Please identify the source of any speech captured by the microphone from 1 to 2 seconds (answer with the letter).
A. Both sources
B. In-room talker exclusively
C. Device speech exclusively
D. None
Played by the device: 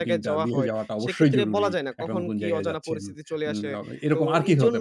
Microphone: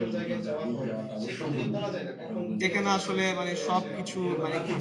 C